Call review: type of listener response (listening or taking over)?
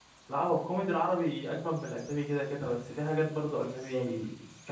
listening